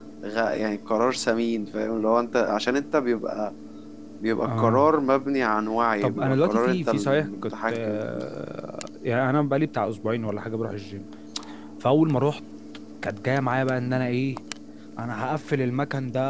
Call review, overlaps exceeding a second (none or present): present